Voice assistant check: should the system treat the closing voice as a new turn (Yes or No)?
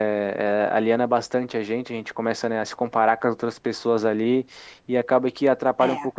No